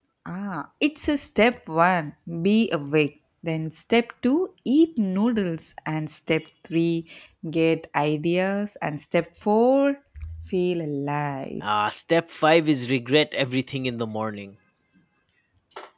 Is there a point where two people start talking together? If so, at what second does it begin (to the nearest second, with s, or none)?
none